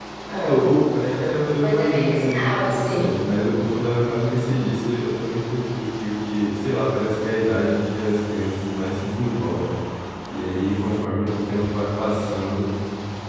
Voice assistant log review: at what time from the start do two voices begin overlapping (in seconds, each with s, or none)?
1.6 s